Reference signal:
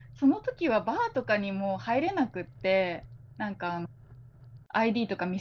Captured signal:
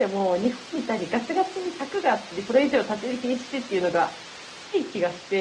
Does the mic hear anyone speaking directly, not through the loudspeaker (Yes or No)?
Yes